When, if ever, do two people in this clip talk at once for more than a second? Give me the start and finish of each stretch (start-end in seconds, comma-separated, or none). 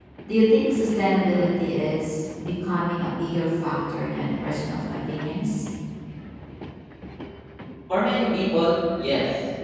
none